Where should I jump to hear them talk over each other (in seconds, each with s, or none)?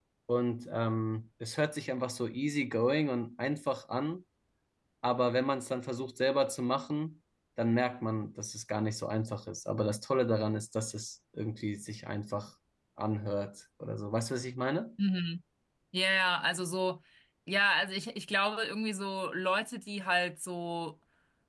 none